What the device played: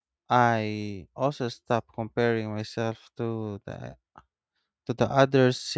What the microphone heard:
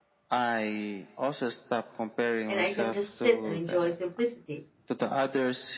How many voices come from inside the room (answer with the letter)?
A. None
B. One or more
B